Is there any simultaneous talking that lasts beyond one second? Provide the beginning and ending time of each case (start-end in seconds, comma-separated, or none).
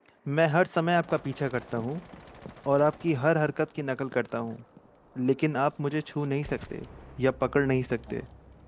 none